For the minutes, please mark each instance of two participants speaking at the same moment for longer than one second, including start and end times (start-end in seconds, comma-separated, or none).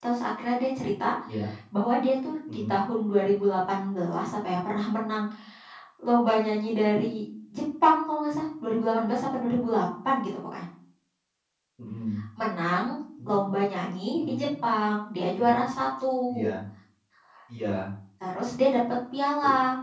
none